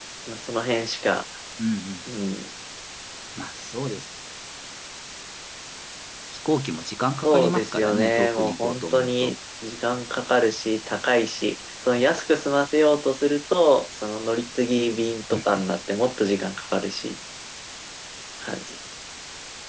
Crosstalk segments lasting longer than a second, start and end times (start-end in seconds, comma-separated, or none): 7.2-9.3